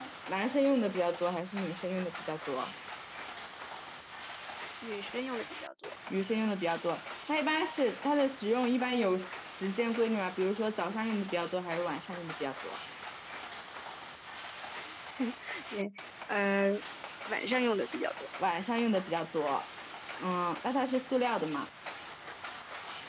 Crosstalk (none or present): none